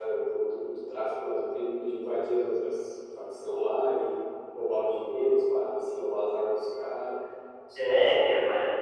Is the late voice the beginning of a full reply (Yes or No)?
Yes